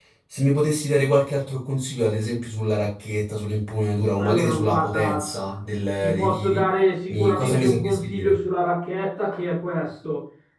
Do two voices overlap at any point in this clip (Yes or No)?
Yes